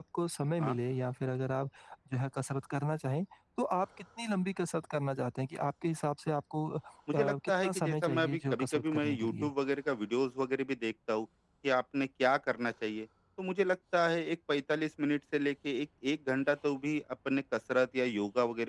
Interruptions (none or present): present